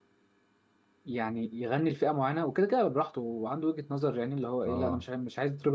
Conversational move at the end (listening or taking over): listening